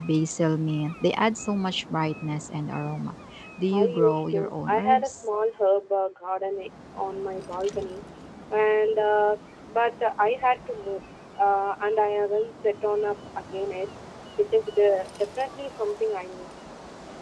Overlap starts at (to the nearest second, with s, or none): 4 s